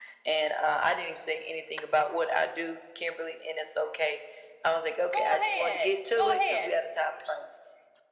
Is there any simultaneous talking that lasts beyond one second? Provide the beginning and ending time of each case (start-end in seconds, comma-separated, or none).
5.1-6.6